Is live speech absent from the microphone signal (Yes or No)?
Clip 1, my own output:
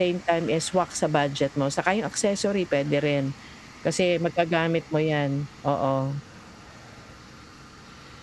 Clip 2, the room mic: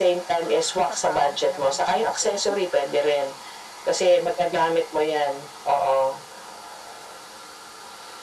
No